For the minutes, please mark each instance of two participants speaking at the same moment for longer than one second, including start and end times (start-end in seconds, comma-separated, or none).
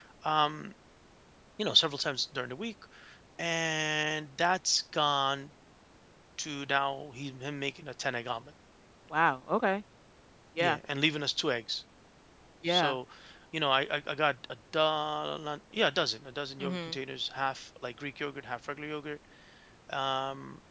none